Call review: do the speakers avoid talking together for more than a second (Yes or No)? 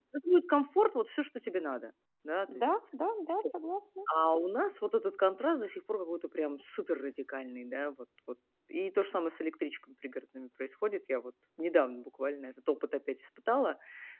Yes